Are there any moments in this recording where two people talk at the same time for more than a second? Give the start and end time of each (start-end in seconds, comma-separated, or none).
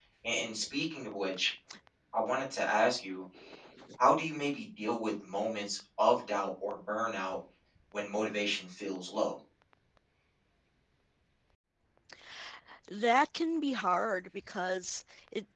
none